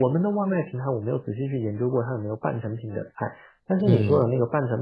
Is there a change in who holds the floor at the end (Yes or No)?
No